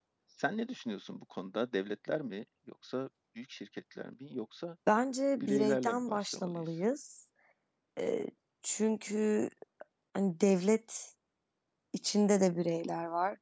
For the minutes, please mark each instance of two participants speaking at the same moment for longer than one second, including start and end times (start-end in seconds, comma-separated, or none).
5.4-6.6